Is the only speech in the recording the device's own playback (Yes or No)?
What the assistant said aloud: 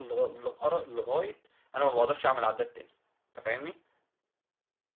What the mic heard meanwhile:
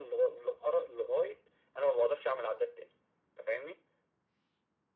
Yes